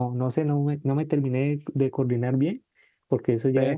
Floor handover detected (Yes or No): No